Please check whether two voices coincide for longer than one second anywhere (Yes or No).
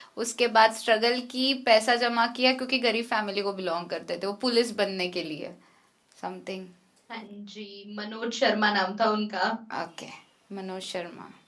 No